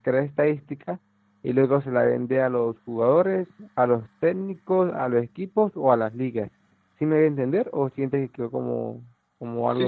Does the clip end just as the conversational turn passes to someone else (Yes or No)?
Yes